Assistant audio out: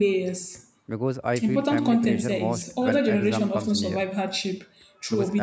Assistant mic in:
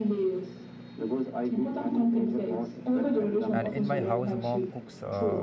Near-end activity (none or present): present